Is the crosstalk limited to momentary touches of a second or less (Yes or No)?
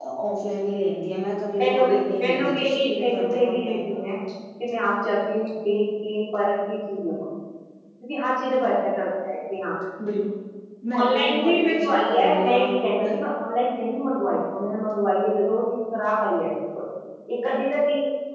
No